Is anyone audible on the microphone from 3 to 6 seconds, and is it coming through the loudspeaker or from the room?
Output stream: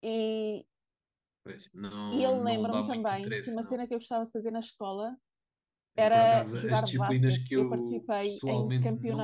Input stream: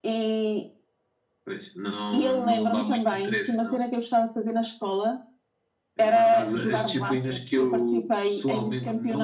echo only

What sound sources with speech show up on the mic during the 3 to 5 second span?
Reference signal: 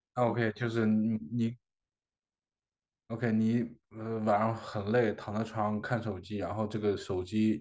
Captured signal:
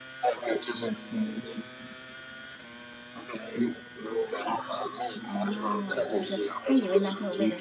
echo only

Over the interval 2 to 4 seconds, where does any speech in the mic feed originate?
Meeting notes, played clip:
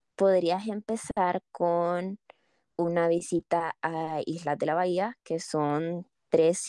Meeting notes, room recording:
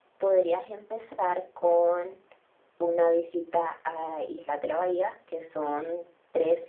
echo only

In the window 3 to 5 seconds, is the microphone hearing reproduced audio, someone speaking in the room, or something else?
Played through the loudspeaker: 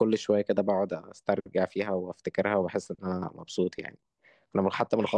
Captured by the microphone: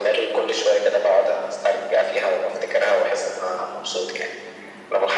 echo only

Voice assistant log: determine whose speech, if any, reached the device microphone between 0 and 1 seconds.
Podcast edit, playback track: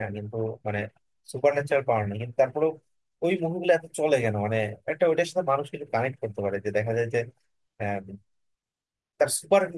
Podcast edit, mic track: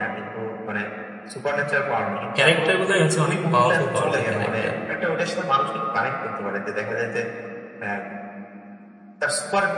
echo only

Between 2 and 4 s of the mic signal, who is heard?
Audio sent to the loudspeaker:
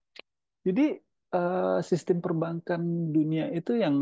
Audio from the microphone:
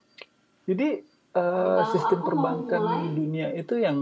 both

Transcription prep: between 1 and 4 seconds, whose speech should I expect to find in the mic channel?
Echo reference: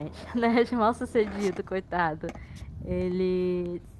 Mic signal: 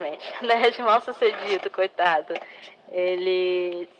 echo only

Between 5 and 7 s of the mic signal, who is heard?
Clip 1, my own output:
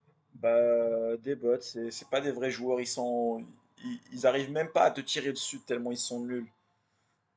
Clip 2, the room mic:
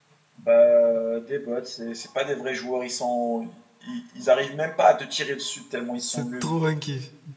both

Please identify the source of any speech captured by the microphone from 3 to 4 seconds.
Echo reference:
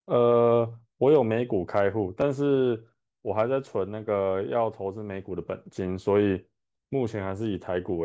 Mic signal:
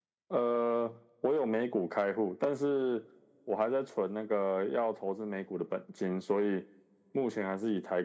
echo only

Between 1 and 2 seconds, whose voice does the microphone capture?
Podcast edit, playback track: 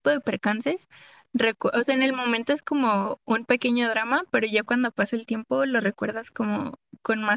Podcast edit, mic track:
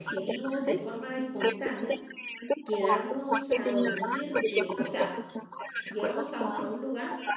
both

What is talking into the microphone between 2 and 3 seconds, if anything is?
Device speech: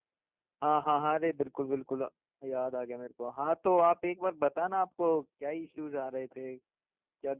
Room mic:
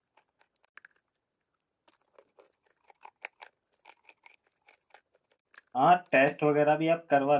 neither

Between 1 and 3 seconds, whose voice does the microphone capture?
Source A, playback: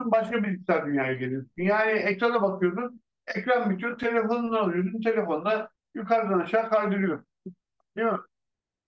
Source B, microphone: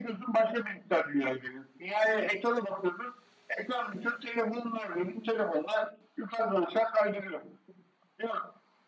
echo only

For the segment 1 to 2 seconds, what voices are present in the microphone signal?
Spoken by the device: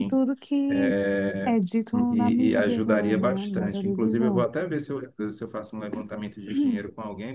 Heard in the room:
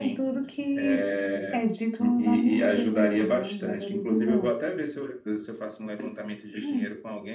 echo only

